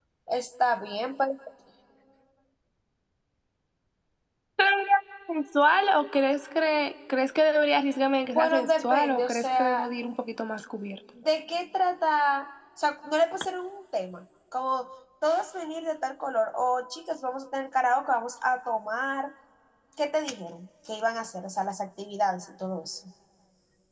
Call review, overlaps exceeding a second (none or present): present